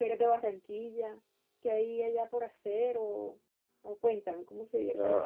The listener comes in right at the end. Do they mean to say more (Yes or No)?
Yes